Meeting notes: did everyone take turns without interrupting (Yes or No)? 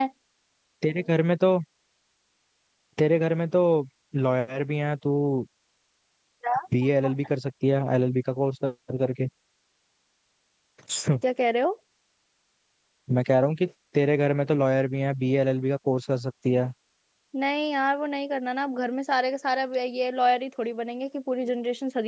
Yes